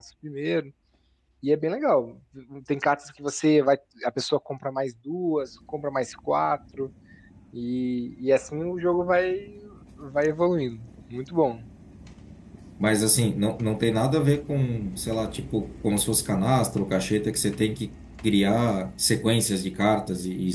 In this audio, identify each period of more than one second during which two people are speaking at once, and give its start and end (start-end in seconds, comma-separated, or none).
none